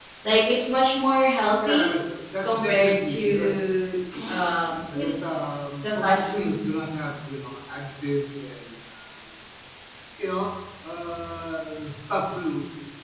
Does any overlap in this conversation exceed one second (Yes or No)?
Yes